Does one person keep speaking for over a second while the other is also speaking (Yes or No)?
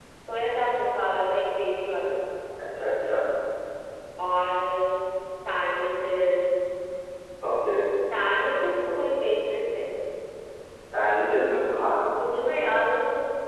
No